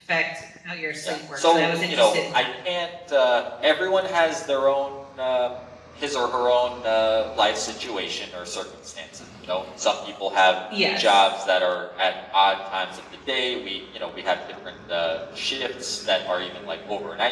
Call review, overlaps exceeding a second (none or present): present